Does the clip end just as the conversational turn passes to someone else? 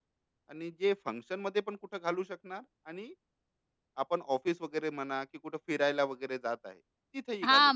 Yes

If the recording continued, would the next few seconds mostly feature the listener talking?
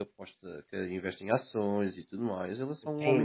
Yes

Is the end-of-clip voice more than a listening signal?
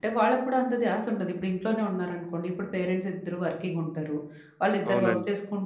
No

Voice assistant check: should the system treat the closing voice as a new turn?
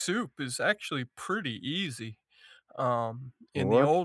Yes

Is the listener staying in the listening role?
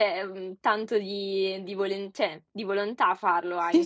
No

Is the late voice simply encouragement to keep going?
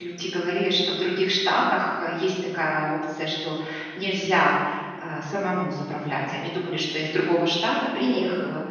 Yes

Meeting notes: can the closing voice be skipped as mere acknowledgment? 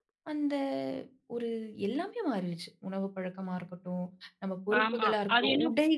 No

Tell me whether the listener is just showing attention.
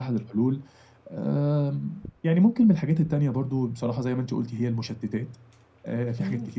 Yes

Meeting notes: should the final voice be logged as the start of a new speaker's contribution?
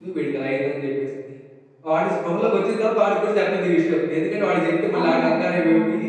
No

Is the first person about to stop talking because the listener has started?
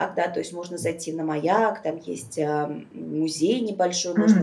Yes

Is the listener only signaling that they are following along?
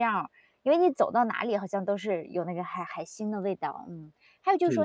Yes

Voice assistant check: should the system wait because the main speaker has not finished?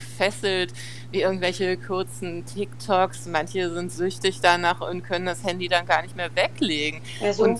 Yes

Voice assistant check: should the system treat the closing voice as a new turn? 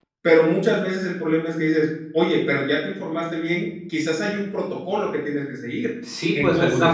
Yes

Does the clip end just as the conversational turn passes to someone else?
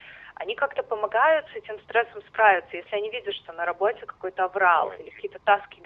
No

